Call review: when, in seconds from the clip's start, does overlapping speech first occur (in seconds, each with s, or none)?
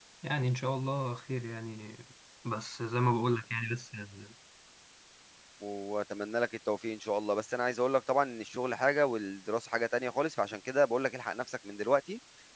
none